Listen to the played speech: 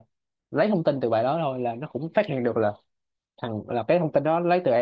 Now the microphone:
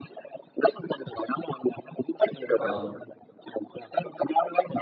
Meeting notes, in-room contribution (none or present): present